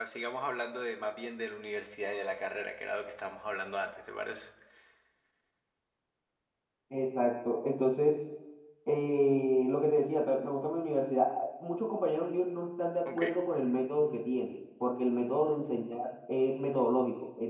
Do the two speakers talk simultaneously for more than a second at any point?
No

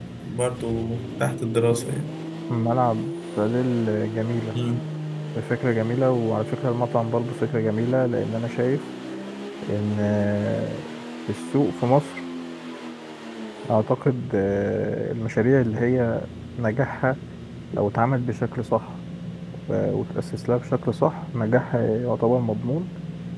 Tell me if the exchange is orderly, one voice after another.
Yes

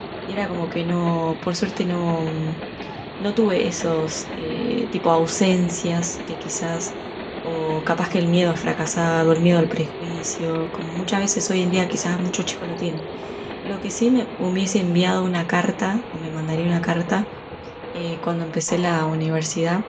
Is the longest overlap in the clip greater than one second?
No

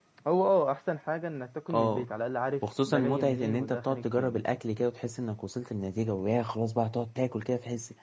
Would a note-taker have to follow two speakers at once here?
Yes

